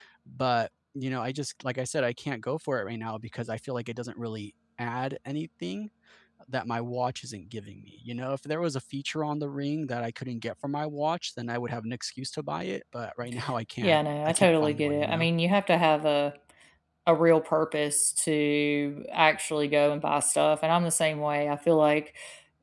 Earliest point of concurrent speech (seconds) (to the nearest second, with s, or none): 14 s